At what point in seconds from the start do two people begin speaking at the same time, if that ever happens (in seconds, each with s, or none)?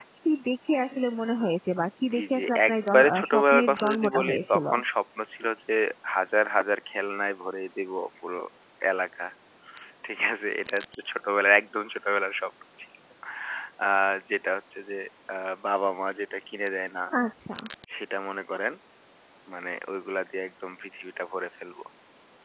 2.1 s